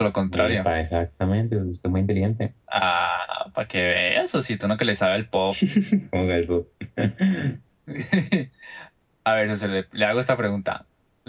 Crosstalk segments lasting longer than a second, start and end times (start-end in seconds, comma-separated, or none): none